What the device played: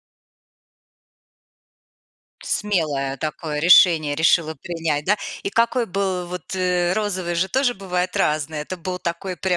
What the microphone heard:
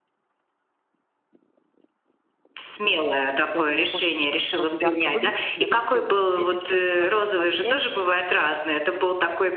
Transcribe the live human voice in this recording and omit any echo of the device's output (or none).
Я думала: "Боже, ты ж так сразу ярко выглядишь, тебя там все будут видеть, все на тебя будут смотреть".